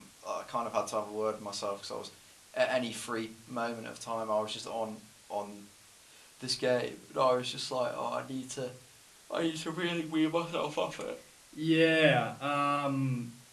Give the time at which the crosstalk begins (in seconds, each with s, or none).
none